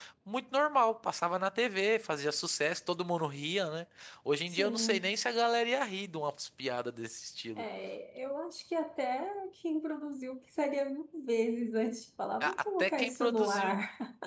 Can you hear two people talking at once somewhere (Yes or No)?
Yes